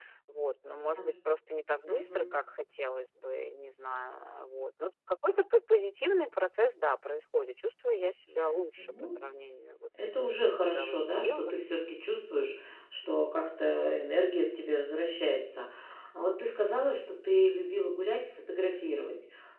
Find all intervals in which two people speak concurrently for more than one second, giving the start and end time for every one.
10.0-11.6

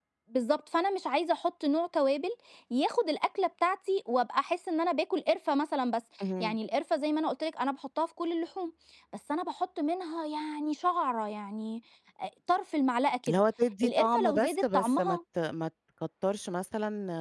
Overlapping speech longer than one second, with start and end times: 13.8-15.2

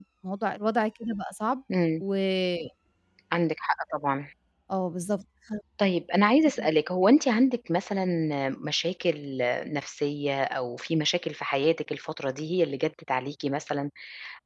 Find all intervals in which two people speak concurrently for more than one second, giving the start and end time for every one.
none

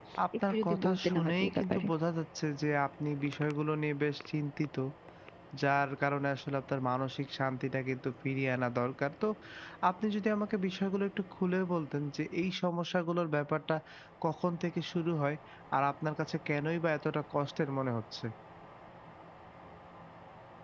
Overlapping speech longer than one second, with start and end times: 0.5-1.9

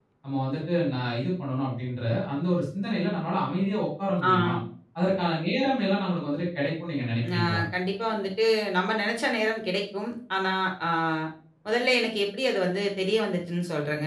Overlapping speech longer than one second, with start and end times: none

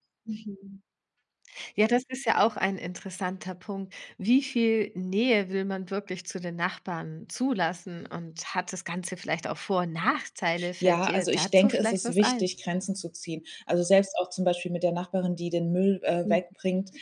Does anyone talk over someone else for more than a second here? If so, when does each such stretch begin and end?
10.8-12.5

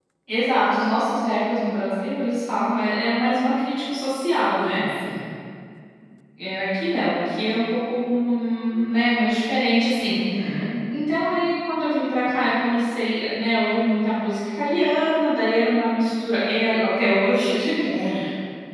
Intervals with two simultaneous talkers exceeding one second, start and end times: none

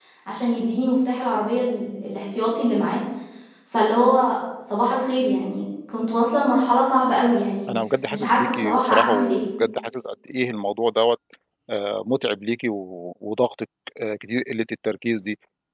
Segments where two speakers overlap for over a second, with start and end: 8.1-9.4

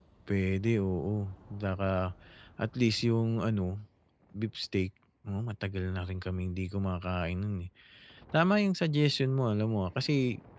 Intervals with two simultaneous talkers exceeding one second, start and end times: none

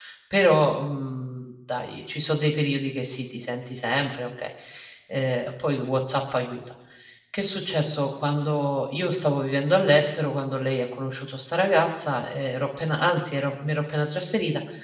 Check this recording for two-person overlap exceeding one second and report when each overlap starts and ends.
none

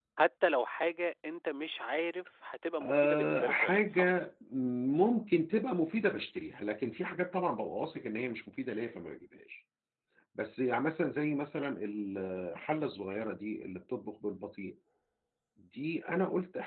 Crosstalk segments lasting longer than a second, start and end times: 2.8-4.1

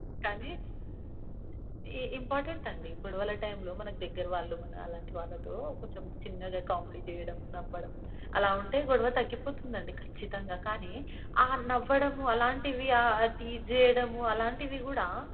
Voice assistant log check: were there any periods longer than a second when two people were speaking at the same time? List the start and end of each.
none

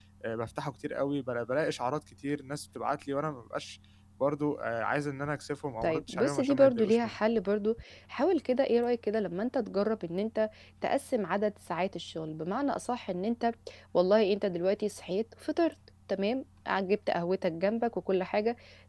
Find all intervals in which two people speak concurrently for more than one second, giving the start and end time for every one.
5.8-7.2

